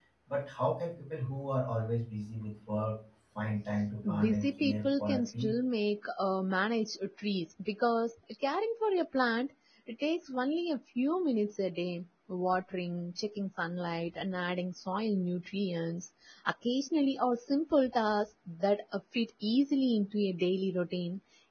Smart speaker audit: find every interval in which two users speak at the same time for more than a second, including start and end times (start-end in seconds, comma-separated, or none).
4.2-5.5